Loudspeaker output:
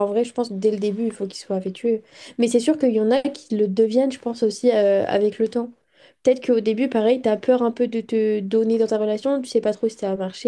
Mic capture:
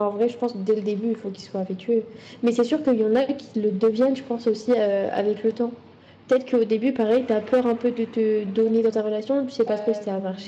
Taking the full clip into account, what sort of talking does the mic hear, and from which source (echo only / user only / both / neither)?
both